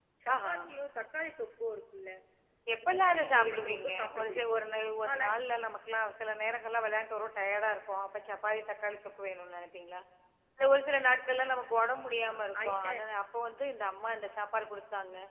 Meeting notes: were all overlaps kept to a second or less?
No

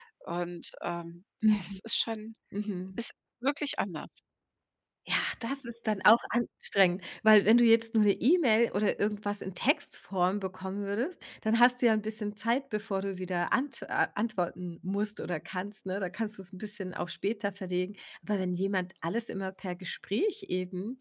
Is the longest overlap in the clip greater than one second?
No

